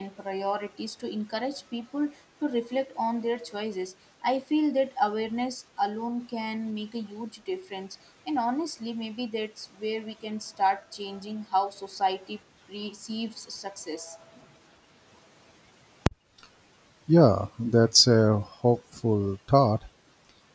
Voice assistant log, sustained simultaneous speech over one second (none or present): none